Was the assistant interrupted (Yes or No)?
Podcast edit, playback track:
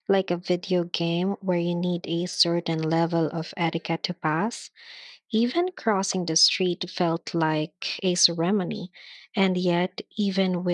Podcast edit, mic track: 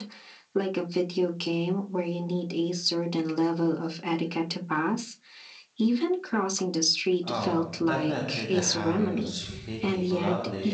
Yes